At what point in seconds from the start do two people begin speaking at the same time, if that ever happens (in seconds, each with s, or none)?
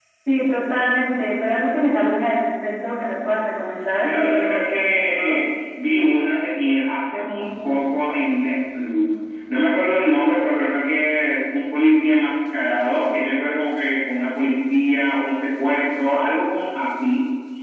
4.0 s